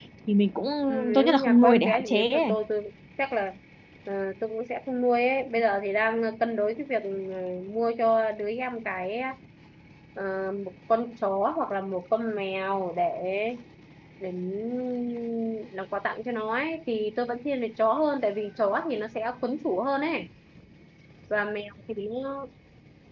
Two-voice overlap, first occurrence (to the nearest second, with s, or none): 1 s